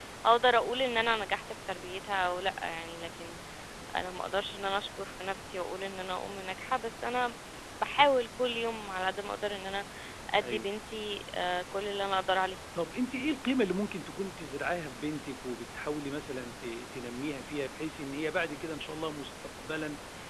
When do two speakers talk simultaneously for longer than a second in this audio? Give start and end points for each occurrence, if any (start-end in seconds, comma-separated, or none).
none